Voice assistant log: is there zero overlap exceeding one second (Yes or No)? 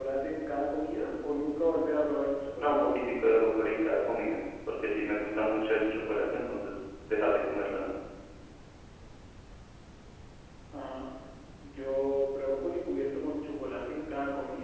Yes